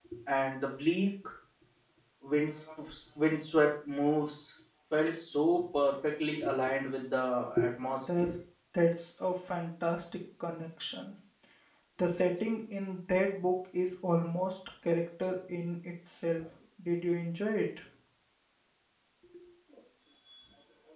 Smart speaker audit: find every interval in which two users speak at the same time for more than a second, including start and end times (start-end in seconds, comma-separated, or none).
none